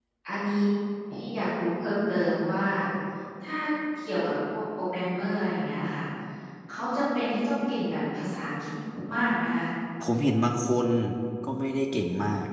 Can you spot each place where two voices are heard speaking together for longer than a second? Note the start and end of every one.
none

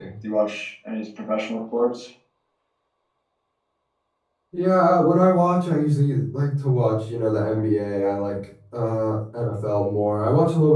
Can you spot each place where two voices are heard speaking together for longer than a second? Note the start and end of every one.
none

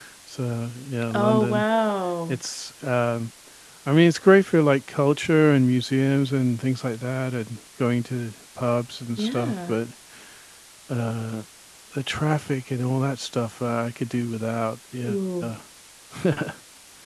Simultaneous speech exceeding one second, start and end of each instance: none

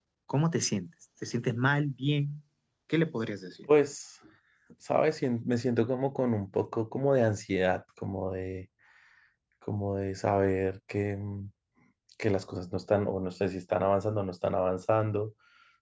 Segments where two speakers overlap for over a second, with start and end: none

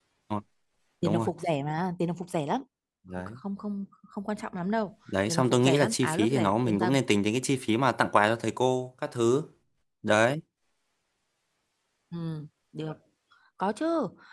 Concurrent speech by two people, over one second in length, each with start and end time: 5.3-6.9

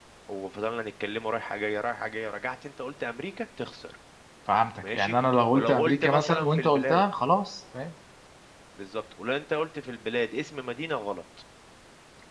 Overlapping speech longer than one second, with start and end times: 5.5-7.0

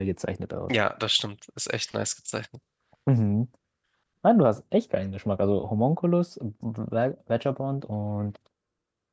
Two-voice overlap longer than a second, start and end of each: none

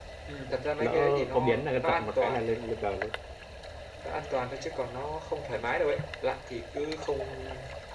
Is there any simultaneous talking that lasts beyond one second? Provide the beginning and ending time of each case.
0.8-2.4

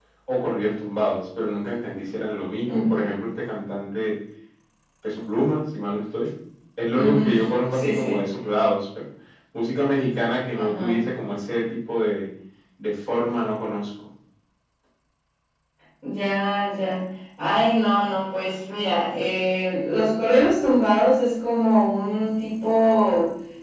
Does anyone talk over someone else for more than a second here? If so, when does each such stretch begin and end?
none

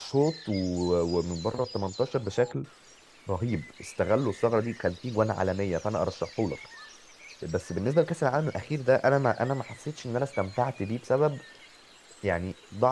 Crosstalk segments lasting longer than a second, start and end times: none

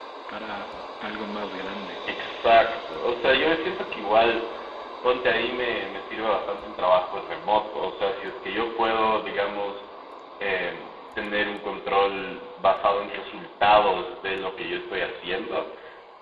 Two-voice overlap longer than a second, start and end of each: none

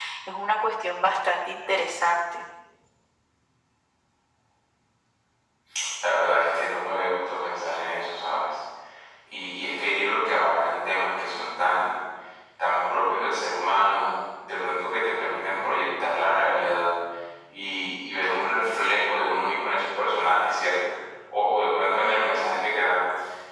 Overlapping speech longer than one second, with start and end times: none

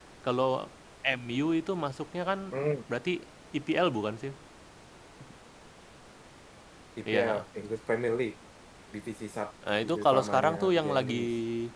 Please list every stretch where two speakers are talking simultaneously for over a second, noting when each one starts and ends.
9.8-11.2

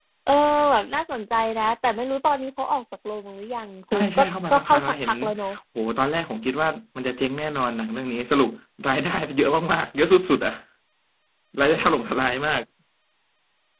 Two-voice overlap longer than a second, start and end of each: 3.9-5.1

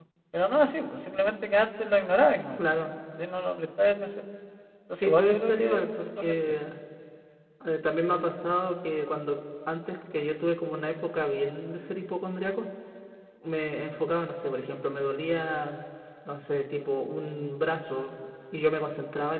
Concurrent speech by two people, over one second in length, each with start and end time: 4.9-6.3

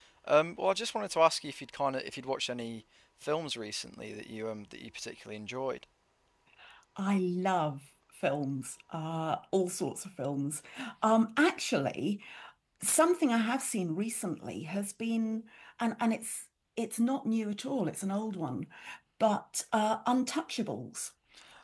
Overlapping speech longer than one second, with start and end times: none

